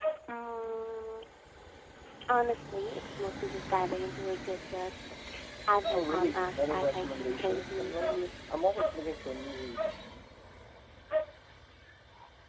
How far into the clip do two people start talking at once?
5.9 s

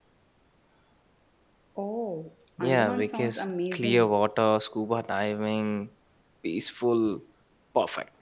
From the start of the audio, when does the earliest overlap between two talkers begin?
2.6 s

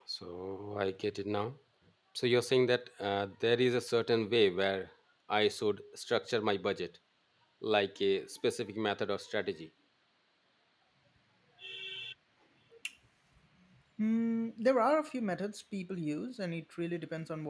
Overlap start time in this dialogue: none

